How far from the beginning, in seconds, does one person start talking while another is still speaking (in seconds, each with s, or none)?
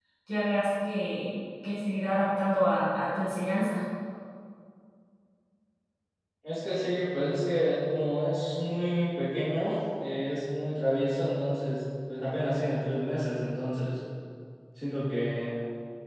none